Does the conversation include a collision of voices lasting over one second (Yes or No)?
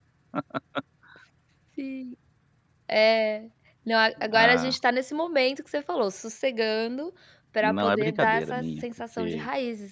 Yes